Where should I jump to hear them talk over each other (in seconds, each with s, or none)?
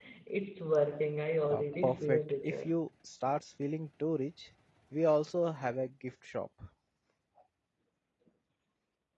1.4 s